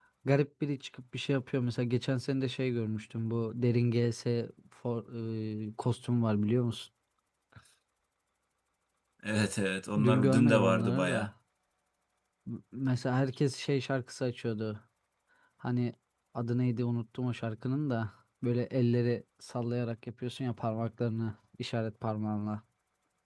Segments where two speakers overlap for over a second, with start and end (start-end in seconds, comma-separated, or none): 10.0-11.3